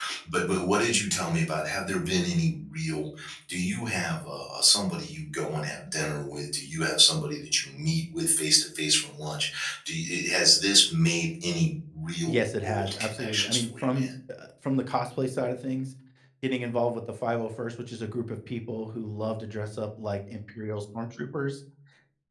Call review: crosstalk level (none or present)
present